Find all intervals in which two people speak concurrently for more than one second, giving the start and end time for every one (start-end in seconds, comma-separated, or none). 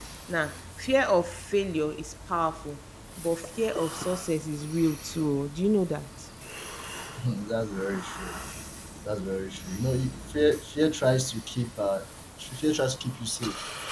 none